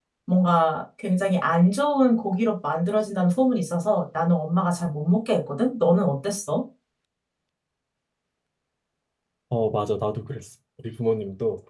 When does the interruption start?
none

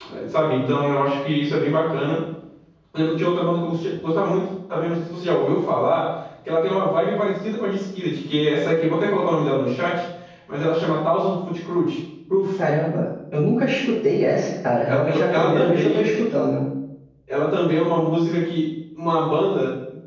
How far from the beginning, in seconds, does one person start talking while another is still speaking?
15 s

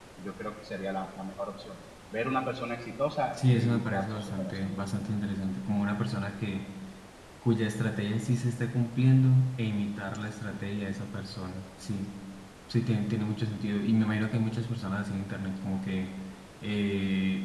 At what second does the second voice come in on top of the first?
3 s

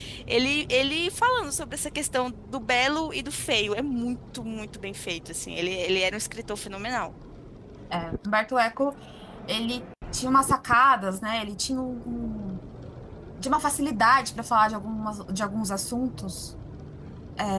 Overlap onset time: none

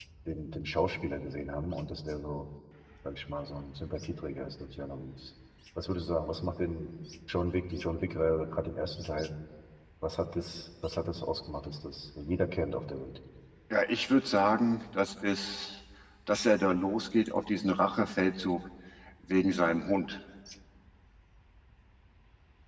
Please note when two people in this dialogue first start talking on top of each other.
none

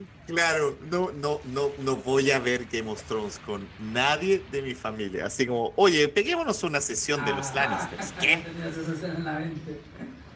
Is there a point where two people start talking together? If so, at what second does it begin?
7 s

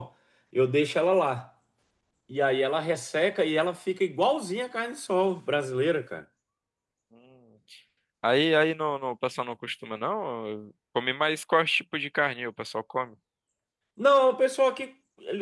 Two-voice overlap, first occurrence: none

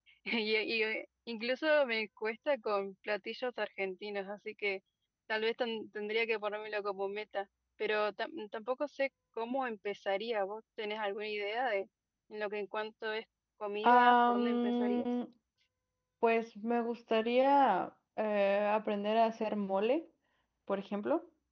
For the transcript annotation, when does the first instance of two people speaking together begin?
14 s

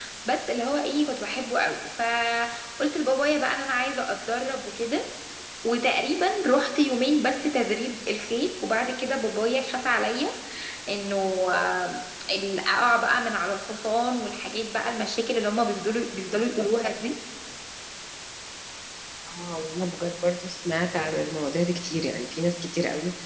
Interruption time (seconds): none

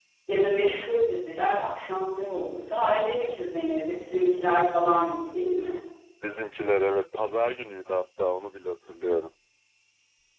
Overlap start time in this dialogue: none

